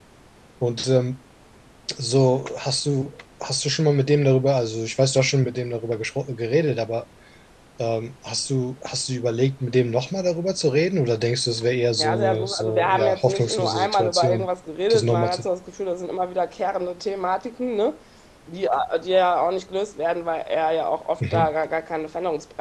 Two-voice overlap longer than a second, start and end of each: 12.0-14.5

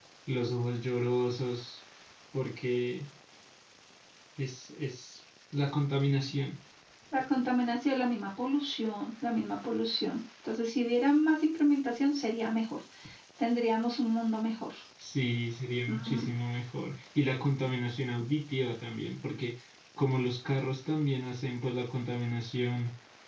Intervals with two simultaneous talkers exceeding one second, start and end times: none

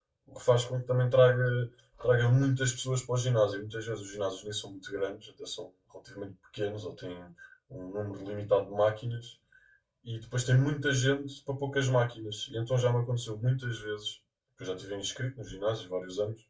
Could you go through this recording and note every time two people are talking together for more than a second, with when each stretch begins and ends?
none

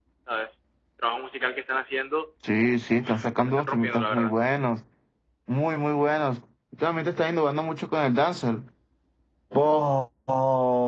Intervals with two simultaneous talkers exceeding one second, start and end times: 3.0-4.3

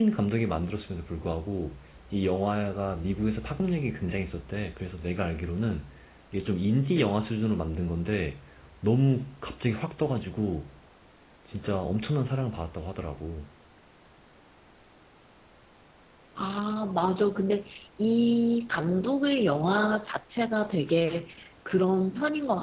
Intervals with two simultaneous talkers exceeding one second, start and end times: none

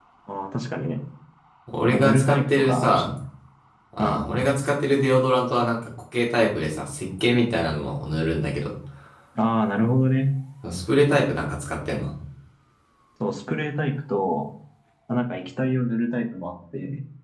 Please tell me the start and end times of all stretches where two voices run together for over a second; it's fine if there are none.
1.9-3.1

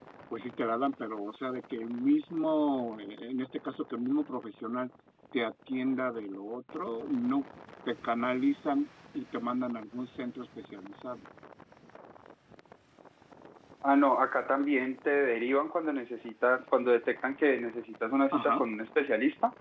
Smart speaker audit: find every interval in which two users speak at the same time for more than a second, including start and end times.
none

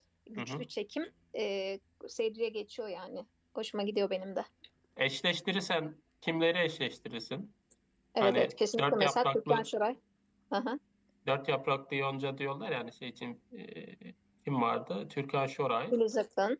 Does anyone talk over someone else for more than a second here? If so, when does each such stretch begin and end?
8.2-9.7

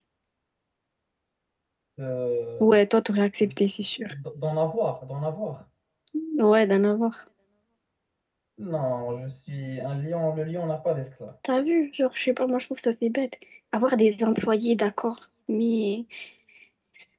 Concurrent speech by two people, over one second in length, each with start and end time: none

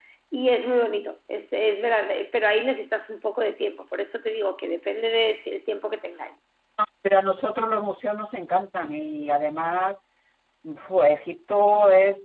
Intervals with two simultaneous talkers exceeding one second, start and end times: none

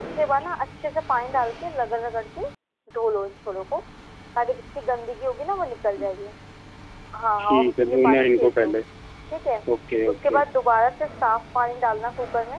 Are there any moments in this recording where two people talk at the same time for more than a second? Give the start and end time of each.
7.5-8.7

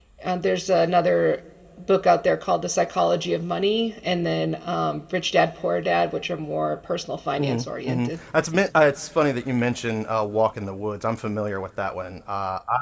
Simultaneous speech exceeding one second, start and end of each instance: none

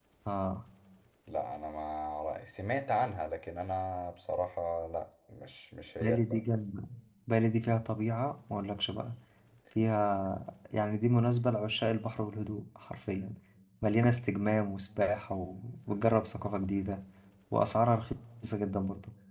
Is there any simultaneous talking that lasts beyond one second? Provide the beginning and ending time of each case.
none

